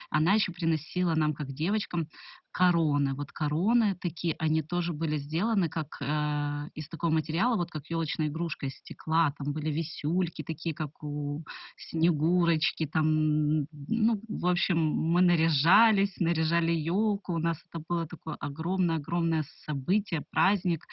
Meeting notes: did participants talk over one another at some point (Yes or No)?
No